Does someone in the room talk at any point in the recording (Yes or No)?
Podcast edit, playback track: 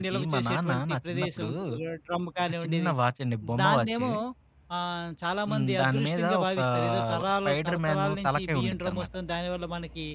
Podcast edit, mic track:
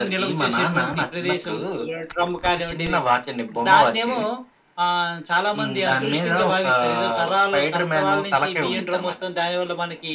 No